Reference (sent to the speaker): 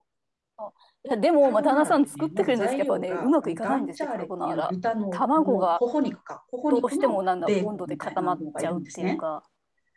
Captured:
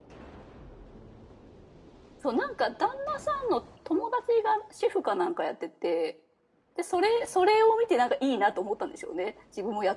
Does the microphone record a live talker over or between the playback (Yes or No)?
Yes